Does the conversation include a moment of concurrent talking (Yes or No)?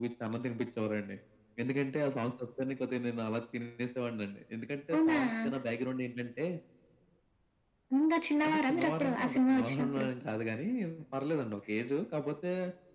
Yes